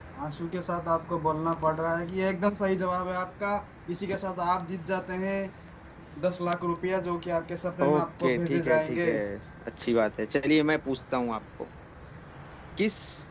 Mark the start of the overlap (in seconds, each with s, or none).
7.8 s